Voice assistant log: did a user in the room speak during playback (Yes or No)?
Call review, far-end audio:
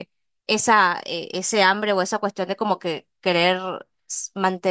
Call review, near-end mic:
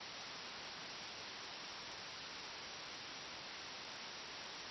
No